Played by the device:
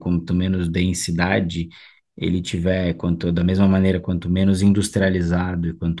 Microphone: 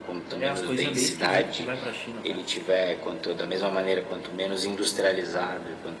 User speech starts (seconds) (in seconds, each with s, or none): 0.3 s